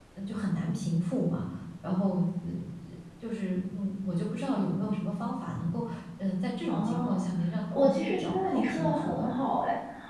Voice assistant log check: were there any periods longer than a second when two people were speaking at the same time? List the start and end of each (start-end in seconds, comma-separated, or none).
7.7-9.3